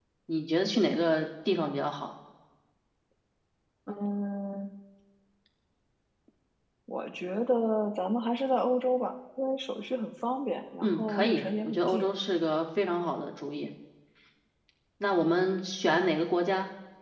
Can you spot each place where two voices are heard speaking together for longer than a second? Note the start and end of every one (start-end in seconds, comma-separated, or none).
10.8-12.1